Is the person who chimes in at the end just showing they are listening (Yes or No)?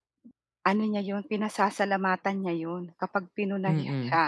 Yes